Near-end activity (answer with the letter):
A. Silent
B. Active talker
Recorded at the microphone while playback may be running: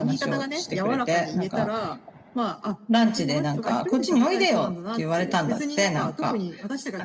A